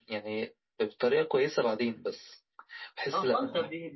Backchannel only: No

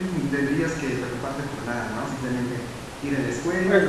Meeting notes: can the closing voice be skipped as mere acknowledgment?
Yes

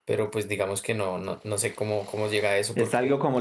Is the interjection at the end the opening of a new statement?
Yes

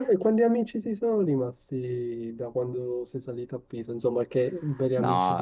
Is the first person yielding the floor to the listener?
Yes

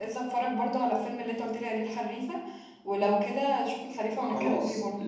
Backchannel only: No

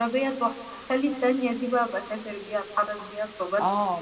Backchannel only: No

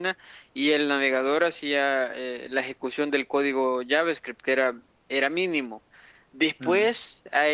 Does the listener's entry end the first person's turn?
No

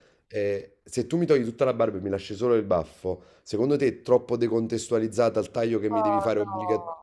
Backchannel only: No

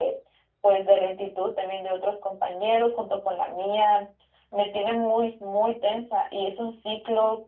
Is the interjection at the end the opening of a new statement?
No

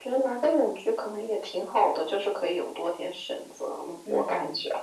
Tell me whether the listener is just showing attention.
No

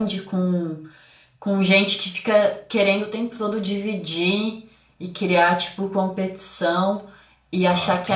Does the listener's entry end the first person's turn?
No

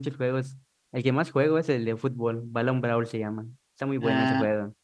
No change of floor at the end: No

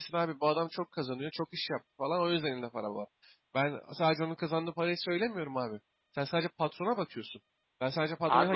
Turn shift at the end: No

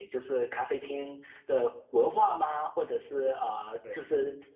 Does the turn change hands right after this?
No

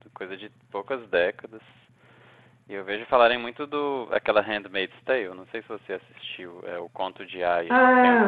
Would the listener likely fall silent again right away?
No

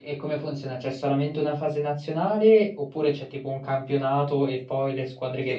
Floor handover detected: Yes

